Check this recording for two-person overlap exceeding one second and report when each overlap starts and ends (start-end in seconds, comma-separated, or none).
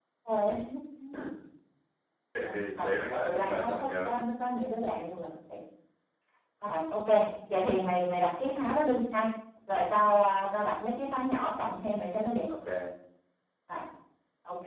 2.4-4.2